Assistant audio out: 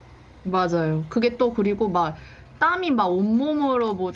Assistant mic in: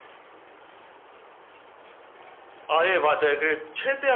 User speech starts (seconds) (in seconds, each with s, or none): 2.7 s